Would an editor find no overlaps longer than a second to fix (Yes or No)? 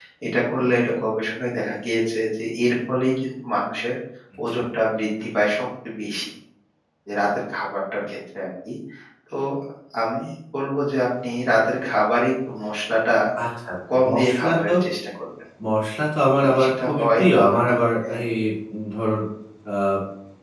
No